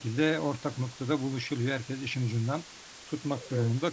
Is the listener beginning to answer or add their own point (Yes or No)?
No